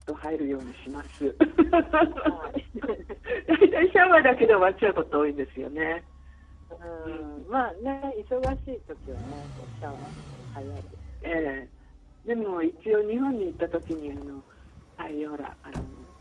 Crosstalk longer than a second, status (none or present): none